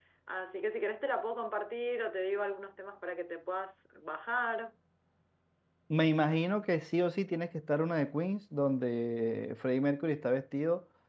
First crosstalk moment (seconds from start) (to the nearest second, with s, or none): none